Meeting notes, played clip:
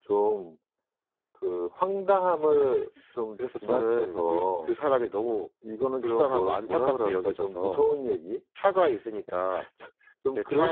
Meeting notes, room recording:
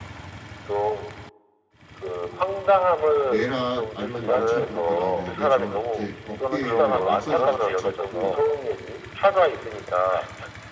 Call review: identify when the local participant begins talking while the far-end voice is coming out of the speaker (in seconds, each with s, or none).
3.2 s